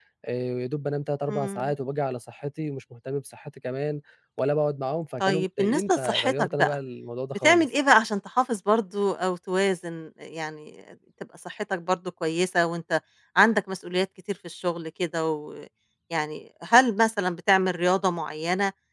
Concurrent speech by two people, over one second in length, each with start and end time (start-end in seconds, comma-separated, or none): 5.2-6.8